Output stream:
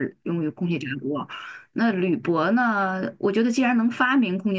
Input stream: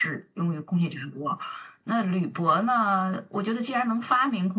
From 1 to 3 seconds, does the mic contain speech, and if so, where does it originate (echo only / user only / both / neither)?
echo only